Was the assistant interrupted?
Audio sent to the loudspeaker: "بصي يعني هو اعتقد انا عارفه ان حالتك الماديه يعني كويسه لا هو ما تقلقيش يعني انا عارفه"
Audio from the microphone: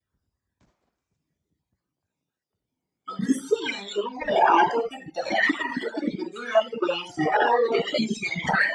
No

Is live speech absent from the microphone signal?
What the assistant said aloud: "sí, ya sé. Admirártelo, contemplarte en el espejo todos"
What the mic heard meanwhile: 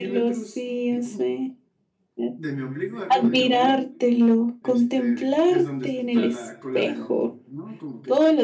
No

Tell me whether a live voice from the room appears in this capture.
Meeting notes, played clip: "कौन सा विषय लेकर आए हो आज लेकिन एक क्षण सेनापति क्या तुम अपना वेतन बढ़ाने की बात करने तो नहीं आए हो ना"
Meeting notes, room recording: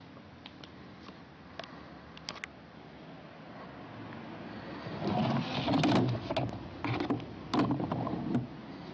No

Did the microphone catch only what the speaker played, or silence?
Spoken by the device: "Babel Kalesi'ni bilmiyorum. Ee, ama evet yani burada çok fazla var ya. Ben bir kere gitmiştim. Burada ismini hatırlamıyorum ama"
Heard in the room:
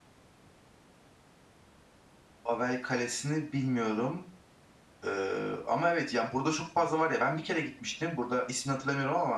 Yes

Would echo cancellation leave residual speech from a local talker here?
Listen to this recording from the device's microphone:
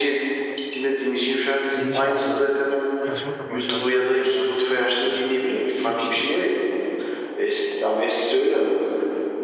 Yes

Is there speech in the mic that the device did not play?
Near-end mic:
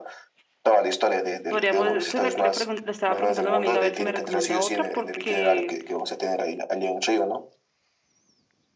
Yes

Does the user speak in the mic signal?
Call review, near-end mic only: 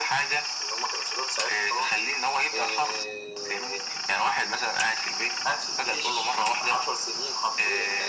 No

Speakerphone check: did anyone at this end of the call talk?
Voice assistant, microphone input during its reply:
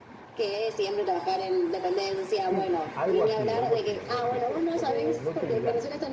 Yes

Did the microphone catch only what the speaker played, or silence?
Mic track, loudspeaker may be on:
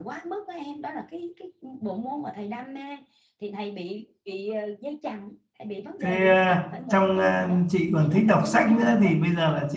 No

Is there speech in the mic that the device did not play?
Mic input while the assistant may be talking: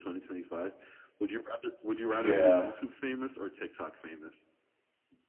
Yes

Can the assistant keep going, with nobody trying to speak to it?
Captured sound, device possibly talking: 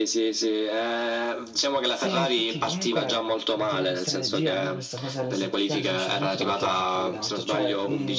No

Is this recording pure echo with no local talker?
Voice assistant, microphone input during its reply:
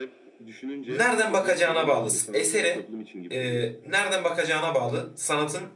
No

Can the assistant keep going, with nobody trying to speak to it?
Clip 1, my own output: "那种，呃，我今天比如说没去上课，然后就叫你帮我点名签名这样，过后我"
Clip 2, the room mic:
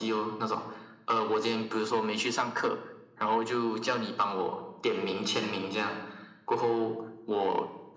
Yes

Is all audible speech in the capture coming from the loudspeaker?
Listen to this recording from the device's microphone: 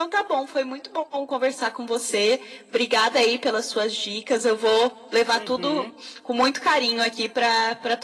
No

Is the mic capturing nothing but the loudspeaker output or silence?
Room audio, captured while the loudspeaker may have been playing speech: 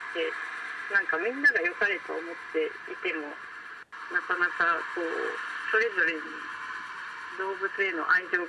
Yes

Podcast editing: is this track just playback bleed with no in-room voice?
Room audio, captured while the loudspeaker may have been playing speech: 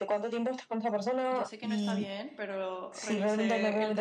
No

